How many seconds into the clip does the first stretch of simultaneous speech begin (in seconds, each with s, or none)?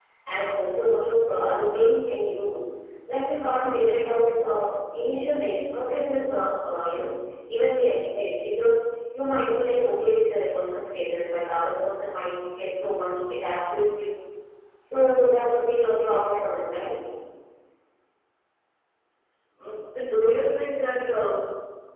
none